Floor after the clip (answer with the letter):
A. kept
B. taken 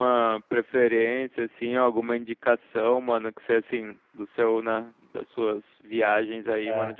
A